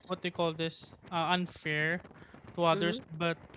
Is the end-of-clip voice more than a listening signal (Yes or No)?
No